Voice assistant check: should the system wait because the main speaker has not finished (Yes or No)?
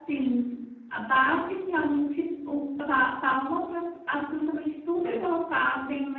Yes